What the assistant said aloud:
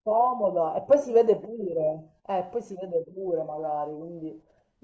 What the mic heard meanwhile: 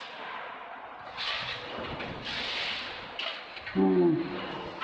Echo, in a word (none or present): none